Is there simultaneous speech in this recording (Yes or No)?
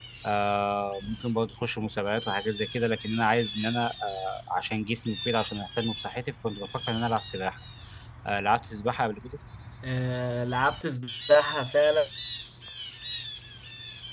No